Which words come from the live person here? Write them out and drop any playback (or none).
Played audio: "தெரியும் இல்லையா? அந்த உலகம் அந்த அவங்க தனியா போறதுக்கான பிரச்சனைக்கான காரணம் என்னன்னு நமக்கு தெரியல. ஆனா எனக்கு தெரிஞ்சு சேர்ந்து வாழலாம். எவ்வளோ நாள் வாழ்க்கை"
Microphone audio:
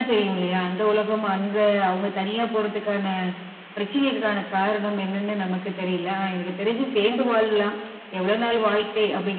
none